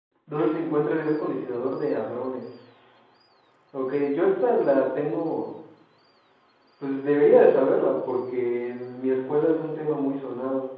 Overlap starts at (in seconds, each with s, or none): none